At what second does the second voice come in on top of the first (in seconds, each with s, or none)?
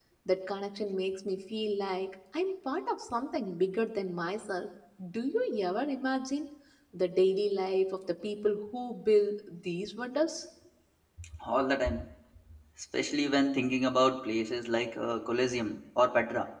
none